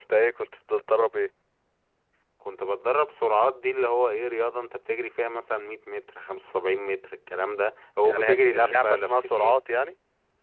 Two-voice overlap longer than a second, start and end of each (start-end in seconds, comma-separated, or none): 8.0-9.6